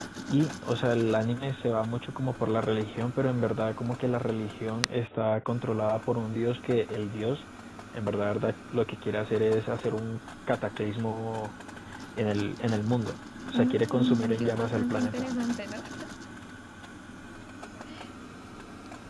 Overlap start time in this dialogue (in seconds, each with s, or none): 13.5 s